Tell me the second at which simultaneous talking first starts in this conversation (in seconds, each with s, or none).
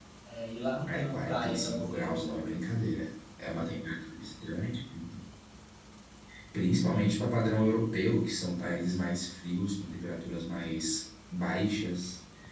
0.9 s